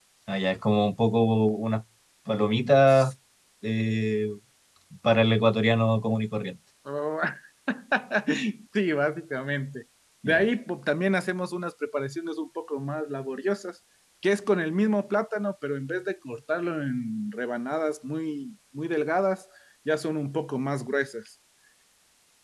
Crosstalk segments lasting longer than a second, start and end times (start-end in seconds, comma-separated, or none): none